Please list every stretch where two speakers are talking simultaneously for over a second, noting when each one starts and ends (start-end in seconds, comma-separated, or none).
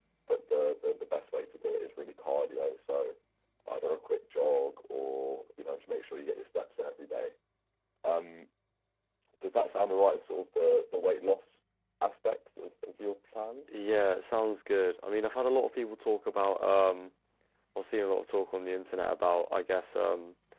none